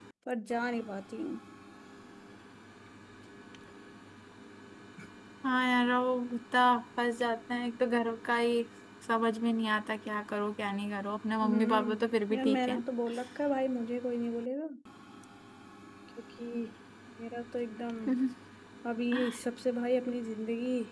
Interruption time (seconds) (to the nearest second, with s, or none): 11 s